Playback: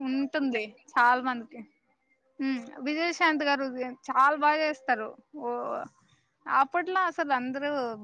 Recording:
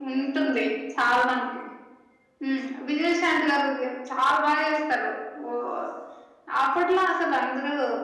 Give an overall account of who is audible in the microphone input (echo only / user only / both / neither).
echo only